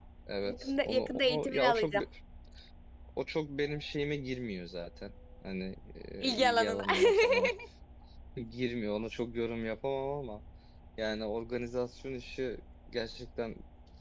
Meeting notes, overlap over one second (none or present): present